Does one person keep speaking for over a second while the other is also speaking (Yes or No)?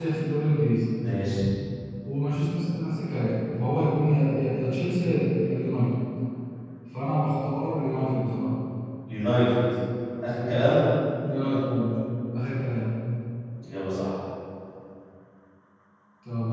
No